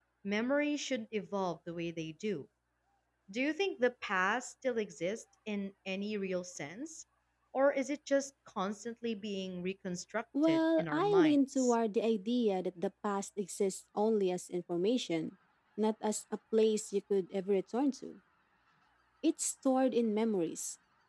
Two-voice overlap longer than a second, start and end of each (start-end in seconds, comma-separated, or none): 10.4-11.8